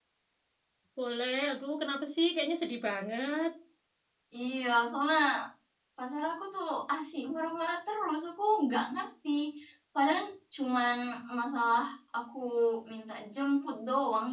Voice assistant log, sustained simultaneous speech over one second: none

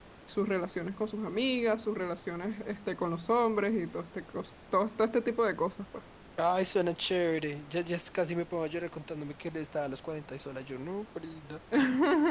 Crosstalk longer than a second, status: none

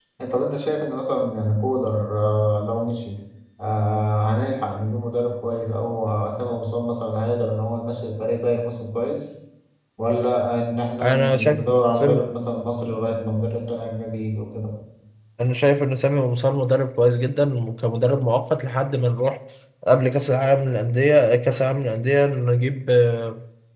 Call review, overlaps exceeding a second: present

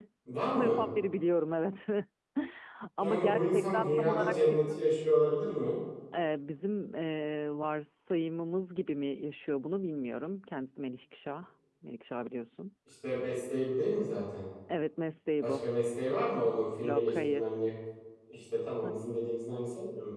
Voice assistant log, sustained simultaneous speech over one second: present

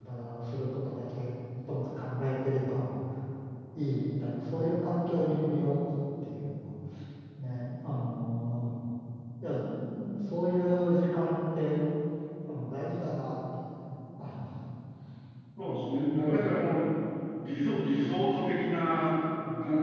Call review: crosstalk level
present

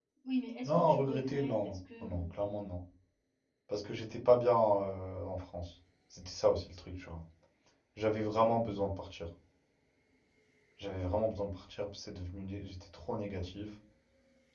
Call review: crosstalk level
present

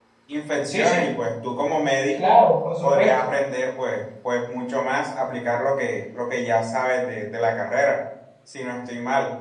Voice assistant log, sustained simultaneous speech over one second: none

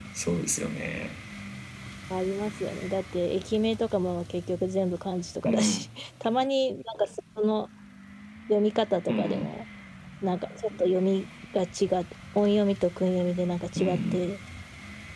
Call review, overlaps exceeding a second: none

